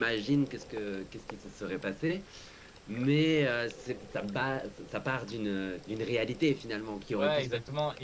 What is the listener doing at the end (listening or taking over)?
taking over